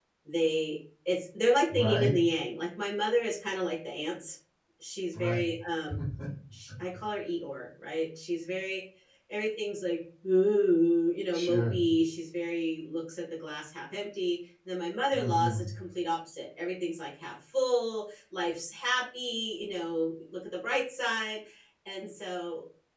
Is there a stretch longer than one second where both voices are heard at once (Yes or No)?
No